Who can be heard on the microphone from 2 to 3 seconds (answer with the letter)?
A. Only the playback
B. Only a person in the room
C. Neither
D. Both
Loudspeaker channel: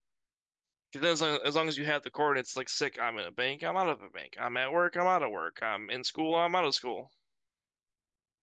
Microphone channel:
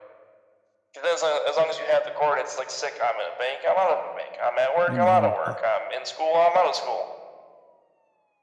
A